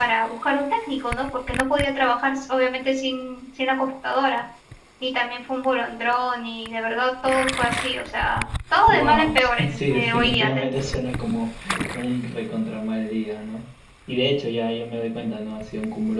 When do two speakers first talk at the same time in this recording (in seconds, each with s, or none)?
8.9 s